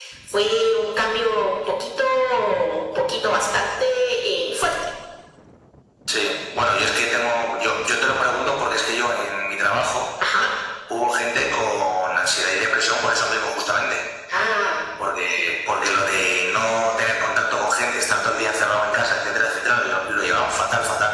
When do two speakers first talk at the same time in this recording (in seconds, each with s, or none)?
none